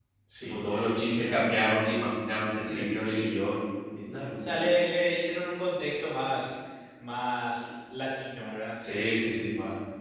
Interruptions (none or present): present